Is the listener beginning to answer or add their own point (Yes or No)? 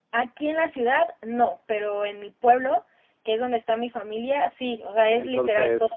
Yes